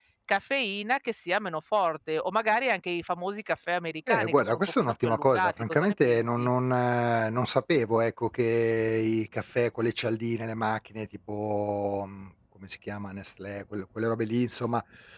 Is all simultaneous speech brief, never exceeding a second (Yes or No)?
No